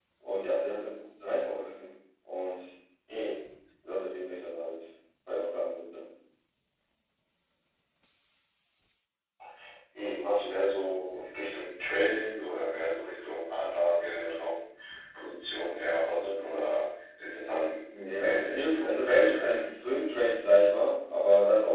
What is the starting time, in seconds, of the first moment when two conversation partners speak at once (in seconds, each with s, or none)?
17.9 s